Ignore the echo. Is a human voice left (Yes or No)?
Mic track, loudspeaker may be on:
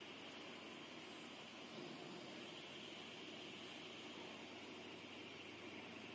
No